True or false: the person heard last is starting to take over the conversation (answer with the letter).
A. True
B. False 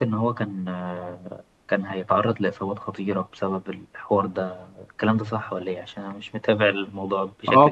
A